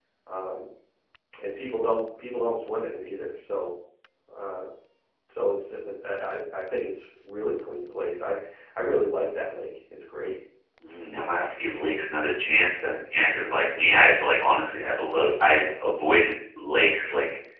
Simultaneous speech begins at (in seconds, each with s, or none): none